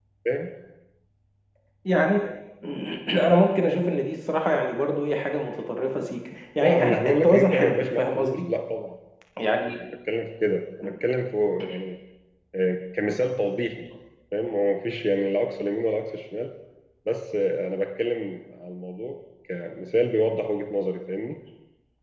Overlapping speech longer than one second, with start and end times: 6.6-8.4

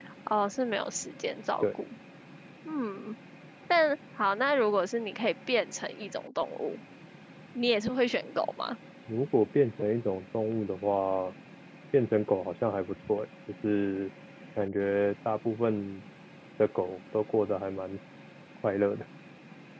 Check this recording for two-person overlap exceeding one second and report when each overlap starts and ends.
none

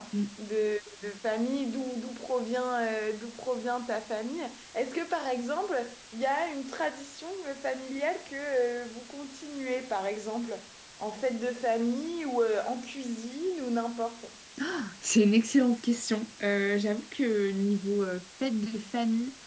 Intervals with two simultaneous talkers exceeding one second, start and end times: none

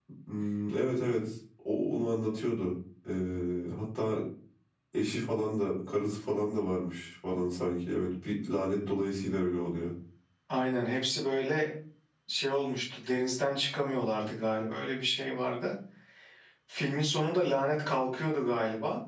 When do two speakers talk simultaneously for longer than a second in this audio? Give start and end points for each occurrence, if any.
none

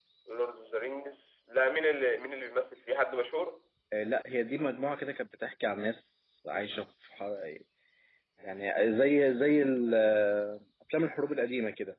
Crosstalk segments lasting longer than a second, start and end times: none

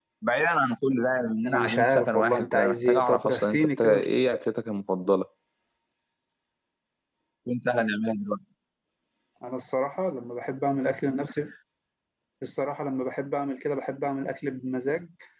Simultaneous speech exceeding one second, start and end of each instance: 1.4-4.0

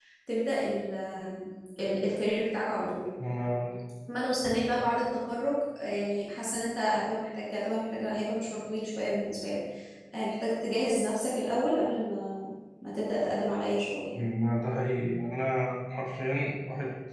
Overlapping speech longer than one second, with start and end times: none

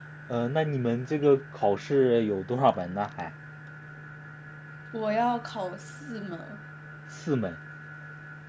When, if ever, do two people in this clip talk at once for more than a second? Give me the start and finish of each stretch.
none

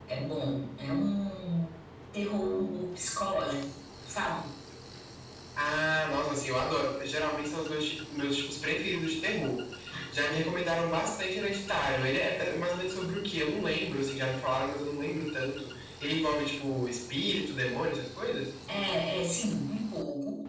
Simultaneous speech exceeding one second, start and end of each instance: none

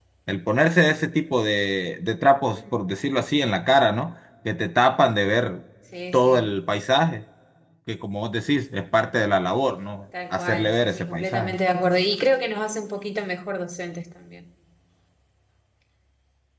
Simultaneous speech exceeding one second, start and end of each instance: 10.3-11.6

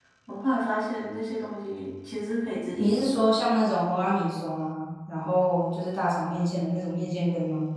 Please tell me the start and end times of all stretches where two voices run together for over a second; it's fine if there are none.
none

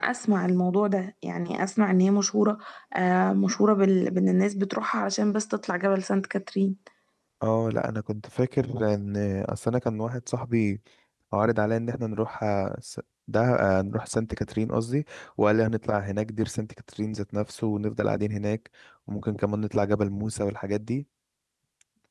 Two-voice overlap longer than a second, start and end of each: none

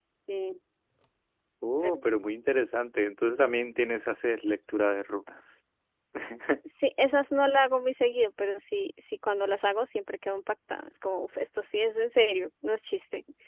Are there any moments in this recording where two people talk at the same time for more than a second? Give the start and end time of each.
none

